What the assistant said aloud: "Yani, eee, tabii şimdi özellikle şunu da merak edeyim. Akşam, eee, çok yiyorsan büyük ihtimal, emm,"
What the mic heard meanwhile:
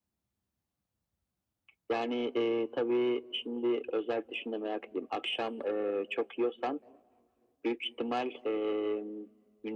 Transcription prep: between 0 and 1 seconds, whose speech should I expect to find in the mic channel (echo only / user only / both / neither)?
neither